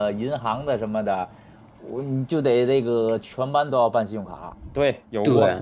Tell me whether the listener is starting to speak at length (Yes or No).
Yes